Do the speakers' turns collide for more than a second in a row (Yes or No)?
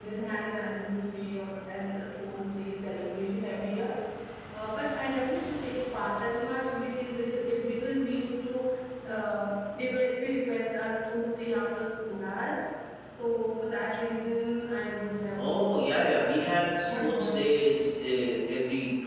Yes